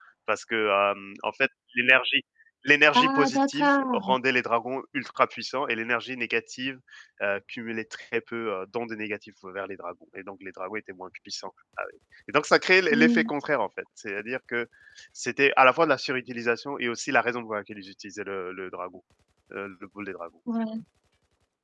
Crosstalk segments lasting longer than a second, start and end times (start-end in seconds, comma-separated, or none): 2.9-4.1